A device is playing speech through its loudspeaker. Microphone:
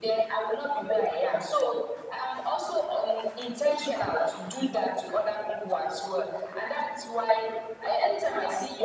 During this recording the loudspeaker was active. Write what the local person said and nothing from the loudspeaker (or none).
none